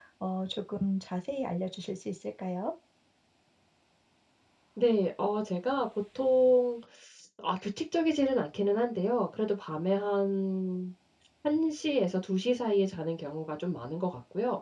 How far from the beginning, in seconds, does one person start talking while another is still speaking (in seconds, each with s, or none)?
none